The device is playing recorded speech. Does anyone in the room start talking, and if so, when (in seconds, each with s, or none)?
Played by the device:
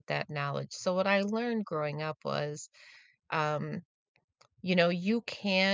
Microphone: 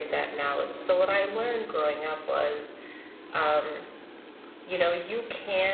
none